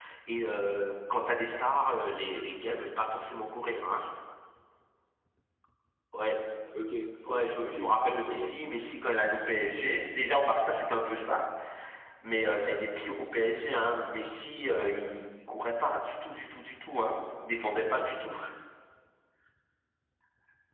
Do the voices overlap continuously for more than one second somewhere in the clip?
Yes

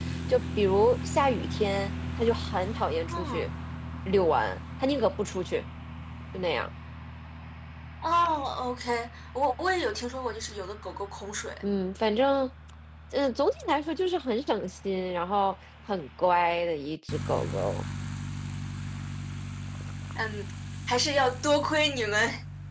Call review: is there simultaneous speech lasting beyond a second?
No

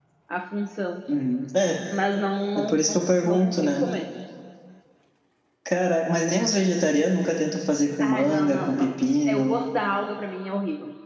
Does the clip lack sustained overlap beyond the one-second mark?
No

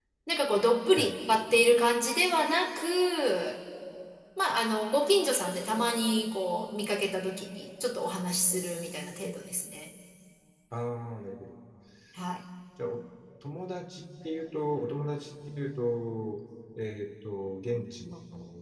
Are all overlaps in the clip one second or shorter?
Yes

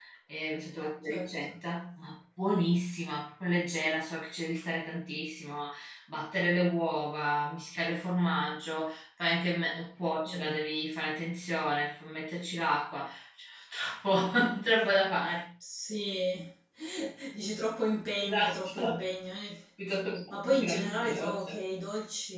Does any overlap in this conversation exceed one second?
Yes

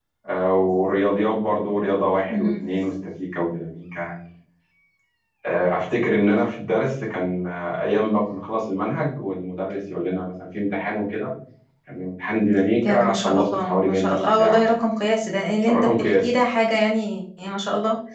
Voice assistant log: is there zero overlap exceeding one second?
No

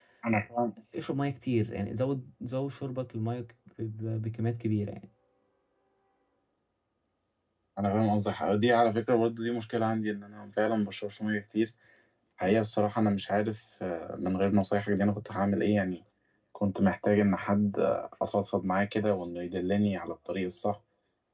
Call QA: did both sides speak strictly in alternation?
Yes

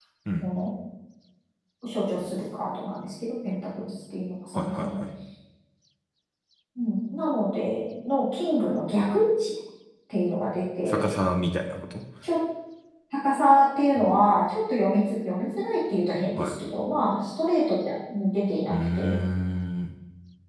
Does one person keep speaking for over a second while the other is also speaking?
No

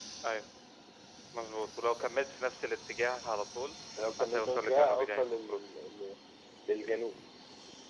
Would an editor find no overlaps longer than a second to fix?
No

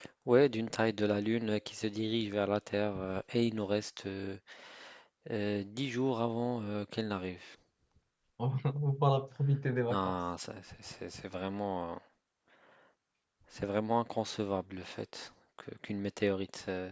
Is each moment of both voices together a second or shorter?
Yes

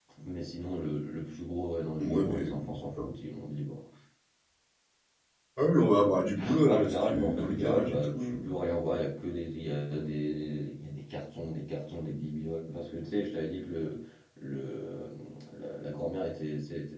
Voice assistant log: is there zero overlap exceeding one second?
No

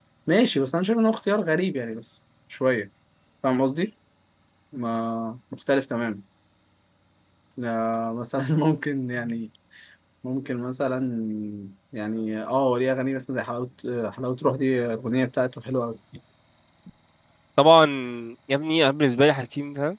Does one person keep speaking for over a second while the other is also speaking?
No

